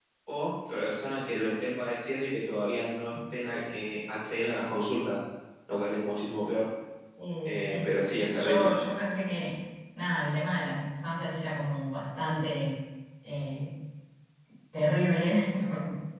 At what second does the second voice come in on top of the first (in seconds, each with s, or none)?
7.4 s